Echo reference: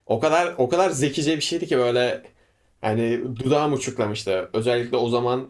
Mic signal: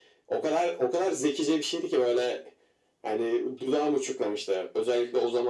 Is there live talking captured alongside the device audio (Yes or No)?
No